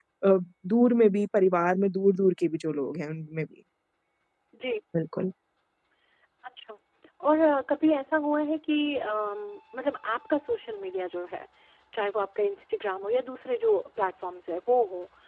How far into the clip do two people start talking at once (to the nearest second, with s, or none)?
none